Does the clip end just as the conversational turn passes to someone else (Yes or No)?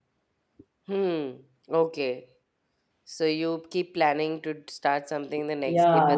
Yes